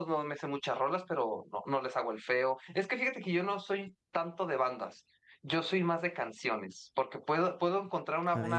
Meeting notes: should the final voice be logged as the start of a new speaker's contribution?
No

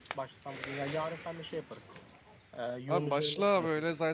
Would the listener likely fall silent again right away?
No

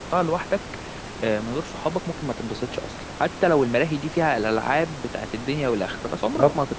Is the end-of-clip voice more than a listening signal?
No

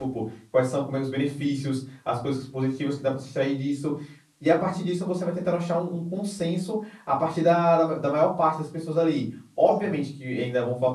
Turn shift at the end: No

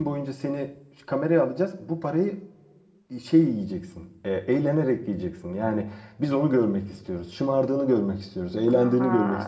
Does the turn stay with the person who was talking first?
No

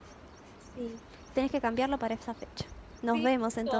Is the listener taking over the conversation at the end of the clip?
Yes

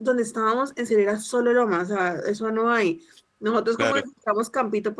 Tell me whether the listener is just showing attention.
Yes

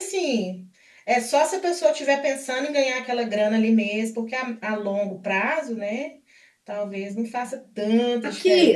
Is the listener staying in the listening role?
No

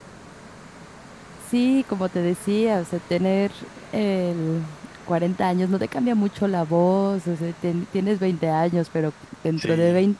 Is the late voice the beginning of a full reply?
No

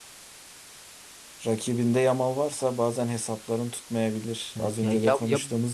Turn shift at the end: Yes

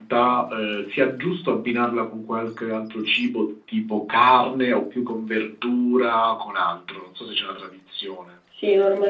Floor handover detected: Yes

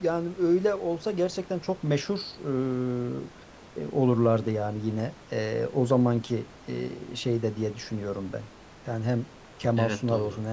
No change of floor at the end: Yes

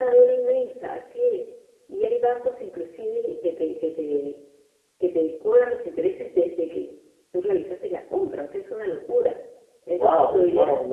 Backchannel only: No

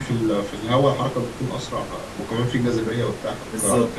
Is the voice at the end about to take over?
Yes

